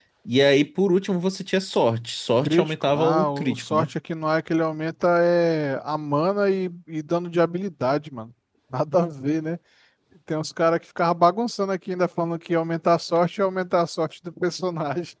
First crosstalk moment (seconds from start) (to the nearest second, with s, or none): 2 s